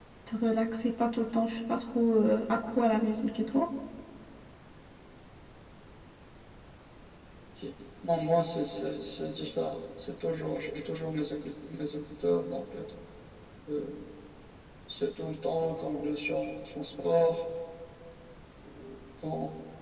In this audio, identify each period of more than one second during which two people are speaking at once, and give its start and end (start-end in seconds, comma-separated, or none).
none